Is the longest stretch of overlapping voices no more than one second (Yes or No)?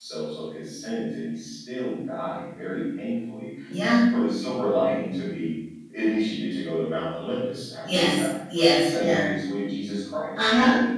Yes